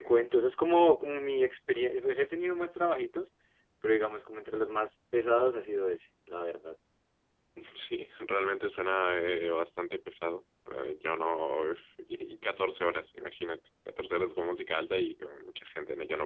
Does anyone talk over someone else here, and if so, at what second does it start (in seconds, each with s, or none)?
none